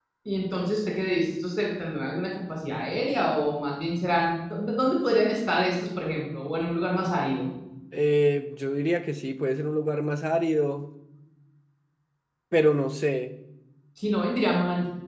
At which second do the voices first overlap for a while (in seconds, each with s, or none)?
none